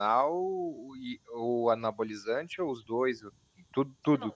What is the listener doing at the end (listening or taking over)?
taking over